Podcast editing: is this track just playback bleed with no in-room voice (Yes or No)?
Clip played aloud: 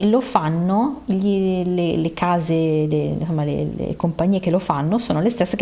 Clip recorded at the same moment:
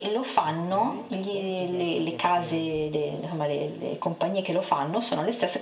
No